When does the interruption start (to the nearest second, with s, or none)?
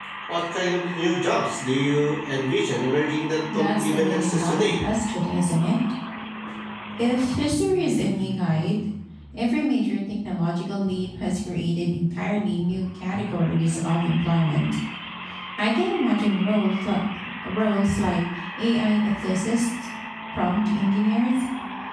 3 s